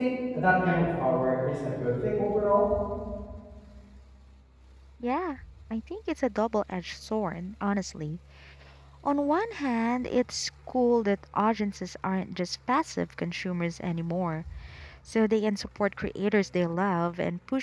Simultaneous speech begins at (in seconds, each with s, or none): none